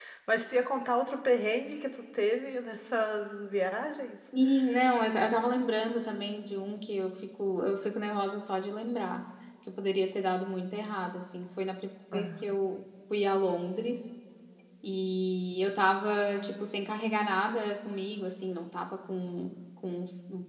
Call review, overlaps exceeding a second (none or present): none